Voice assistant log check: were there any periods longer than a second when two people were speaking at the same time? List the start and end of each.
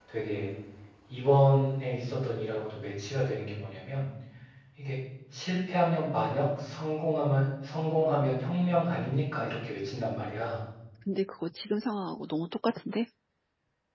none

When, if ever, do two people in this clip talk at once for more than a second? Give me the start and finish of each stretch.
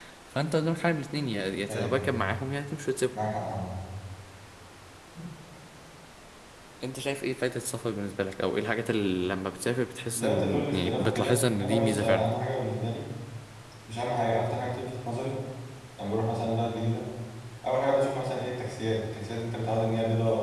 10.2-12.2

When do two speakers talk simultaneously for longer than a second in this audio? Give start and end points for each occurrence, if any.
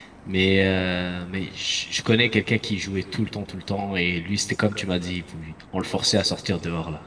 none

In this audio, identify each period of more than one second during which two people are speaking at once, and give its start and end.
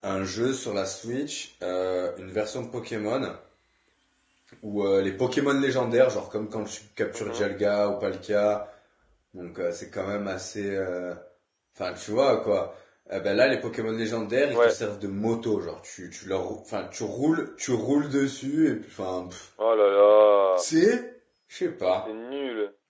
none

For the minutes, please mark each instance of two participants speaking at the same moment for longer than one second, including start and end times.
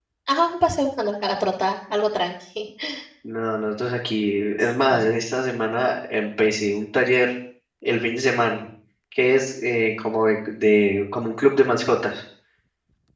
none

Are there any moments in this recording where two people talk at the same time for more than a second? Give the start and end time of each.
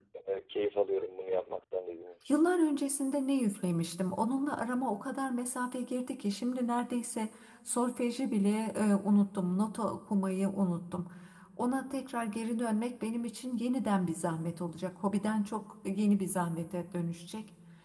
none

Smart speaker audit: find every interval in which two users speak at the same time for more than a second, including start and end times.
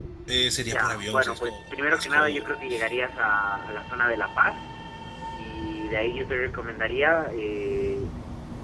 0.7-2.4

